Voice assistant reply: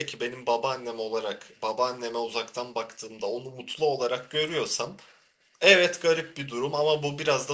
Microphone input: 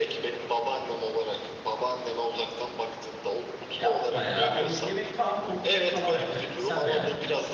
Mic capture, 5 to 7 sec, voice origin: both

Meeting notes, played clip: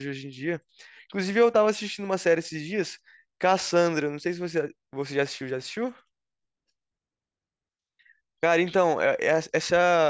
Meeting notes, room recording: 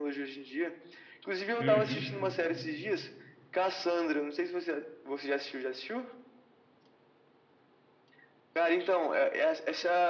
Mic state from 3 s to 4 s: echo only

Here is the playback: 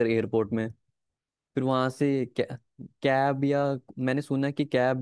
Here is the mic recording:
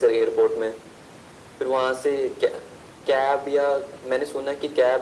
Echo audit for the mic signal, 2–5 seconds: echo only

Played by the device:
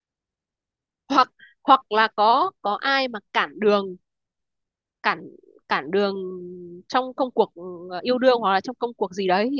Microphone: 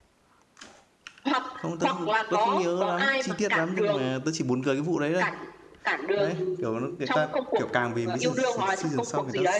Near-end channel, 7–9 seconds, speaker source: both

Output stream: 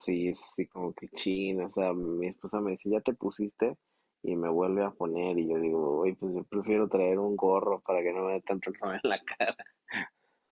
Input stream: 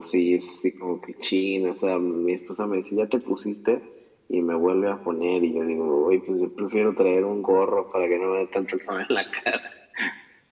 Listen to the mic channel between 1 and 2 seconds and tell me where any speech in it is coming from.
echo only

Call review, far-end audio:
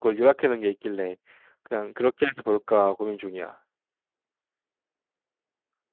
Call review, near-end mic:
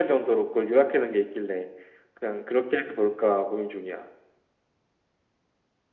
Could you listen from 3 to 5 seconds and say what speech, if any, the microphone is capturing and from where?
echo only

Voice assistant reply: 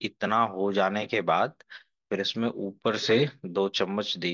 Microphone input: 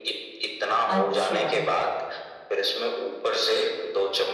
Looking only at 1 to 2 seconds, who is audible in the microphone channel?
both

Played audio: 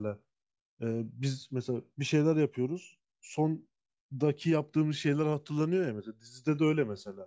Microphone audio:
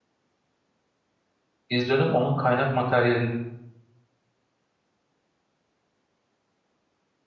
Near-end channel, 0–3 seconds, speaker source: user only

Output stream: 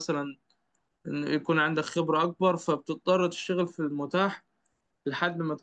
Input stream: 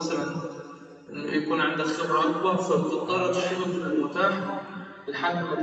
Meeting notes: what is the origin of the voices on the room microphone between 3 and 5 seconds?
both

